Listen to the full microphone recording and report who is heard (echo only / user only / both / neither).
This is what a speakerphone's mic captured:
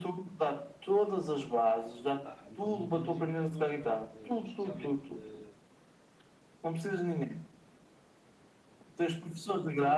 both